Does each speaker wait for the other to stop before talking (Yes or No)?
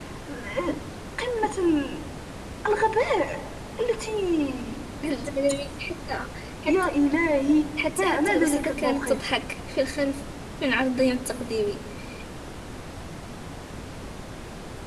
No